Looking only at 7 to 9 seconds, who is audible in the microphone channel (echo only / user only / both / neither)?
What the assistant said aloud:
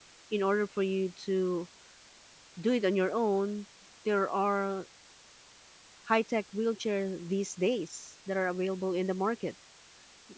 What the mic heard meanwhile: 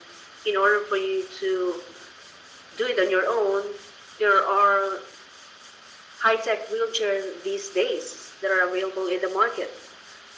echo only